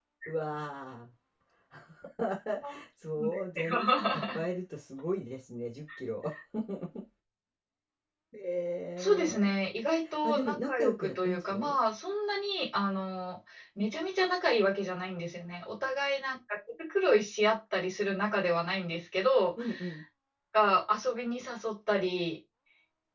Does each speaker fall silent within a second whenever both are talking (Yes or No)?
No